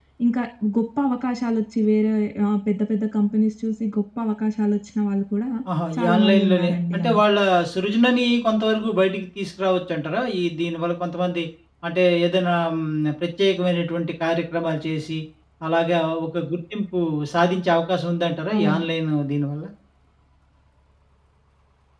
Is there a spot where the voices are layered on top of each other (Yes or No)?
Yes